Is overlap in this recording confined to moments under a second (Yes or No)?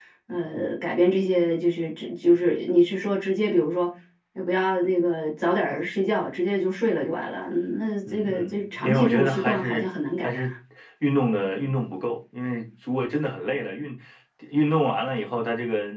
No